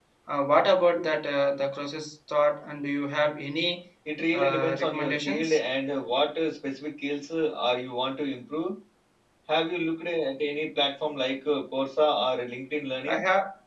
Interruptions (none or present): present